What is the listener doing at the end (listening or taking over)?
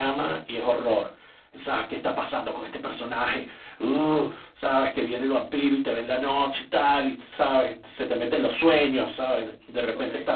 listening